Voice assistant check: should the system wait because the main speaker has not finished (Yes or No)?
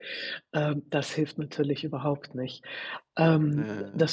Yes